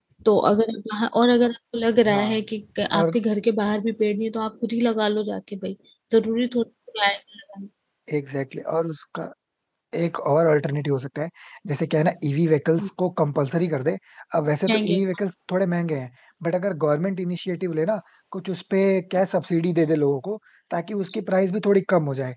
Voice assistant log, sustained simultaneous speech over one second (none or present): none